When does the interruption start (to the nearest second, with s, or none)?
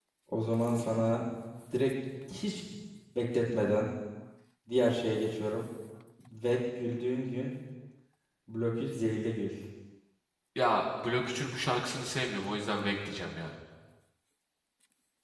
none